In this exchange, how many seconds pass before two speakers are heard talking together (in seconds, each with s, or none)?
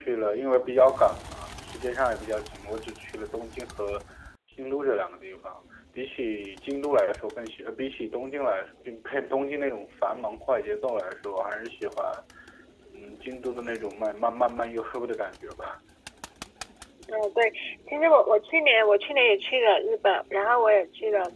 none